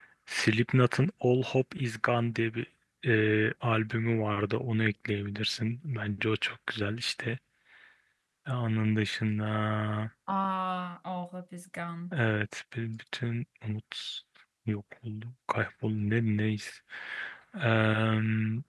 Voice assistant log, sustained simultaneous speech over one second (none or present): none